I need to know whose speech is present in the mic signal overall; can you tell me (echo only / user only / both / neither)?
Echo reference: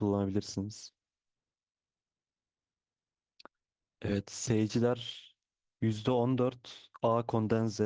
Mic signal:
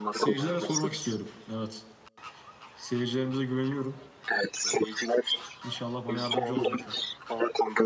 both